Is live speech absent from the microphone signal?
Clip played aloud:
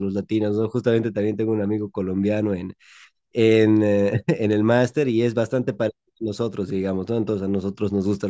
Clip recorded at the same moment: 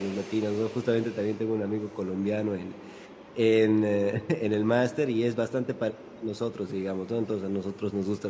Yes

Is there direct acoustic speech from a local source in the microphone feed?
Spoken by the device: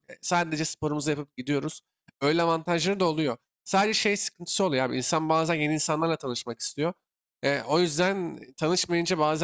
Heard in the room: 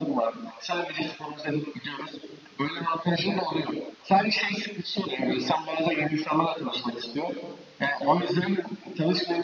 No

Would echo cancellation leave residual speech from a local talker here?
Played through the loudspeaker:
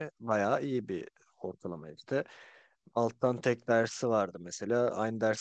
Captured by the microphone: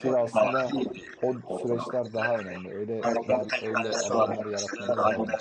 Yes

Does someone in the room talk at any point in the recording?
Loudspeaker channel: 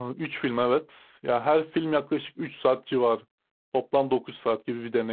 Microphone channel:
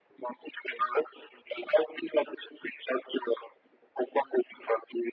No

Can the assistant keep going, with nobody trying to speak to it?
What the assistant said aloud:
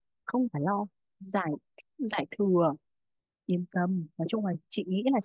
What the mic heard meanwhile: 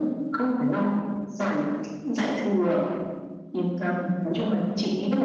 Yes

